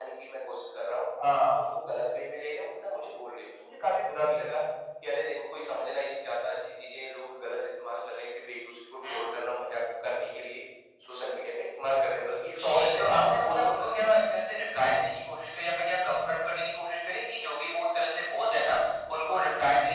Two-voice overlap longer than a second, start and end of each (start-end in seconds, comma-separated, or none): 12.6-14.0